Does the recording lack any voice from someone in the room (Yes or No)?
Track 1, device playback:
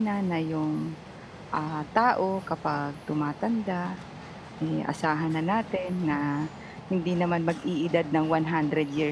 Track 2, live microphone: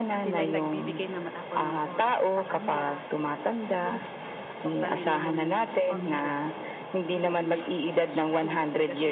No